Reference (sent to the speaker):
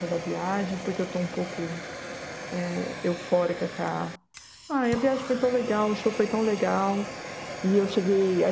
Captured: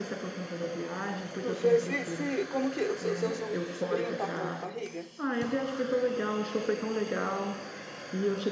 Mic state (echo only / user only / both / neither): both